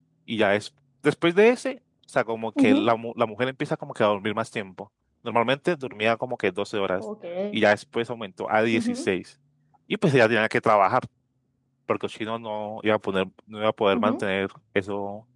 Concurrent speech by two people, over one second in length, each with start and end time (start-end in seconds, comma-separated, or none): none